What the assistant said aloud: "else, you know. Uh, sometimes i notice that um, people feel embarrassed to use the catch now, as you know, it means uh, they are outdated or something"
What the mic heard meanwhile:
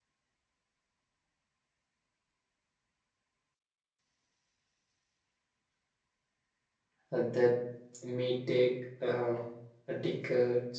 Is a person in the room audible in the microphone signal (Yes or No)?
Yes